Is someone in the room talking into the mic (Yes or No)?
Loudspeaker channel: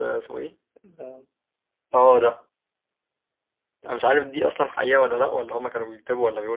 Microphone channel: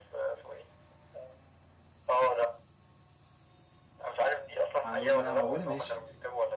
Yes